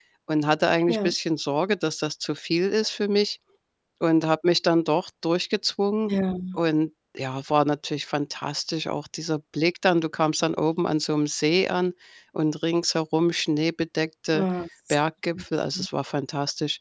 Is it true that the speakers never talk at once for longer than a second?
Yes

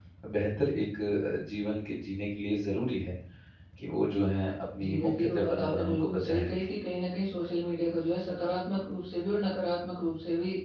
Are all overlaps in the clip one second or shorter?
No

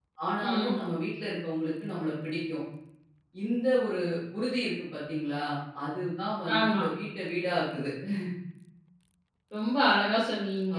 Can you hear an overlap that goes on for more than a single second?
No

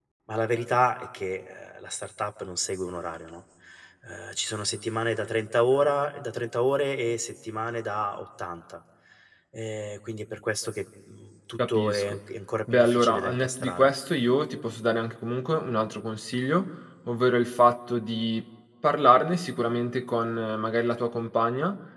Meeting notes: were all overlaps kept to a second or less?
No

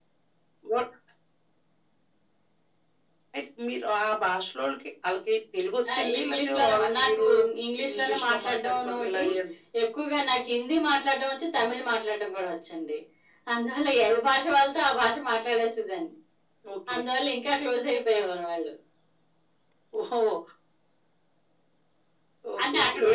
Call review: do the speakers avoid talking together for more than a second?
No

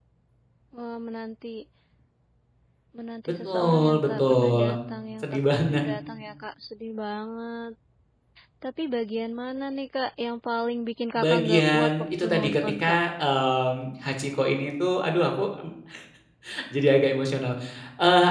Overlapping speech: Yes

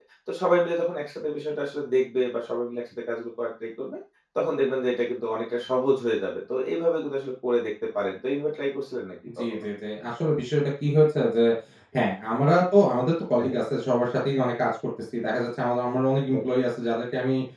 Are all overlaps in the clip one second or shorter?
Yes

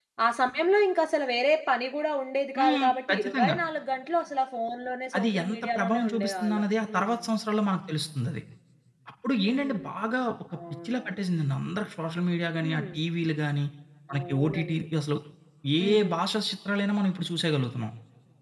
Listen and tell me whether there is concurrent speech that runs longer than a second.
Yes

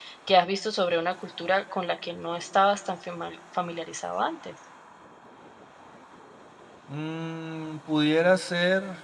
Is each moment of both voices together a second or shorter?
Yes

